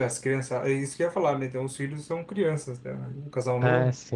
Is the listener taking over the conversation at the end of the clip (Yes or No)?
Yes